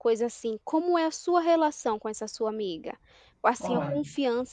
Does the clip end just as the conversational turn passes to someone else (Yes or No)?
No